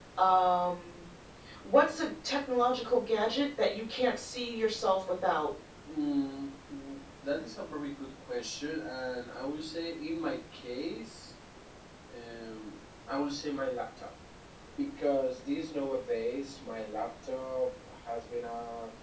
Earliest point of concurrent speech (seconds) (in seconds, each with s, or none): none